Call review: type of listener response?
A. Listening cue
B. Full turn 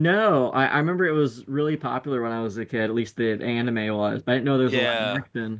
B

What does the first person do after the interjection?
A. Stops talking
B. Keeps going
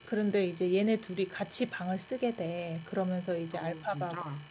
B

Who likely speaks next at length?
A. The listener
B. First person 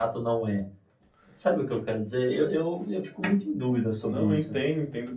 A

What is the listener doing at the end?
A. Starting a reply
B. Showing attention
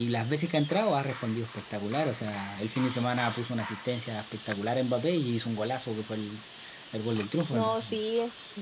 A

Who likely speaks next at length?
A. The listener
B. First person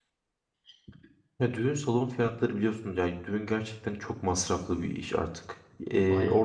B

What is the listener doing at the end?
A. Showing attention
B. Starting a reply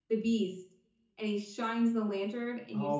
B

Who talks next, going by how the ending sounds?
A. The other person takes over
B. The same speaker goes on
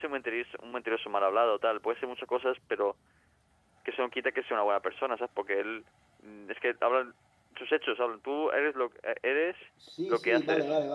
A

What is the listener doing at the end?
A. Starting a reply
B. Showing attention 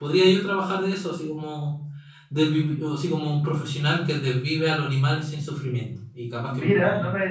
A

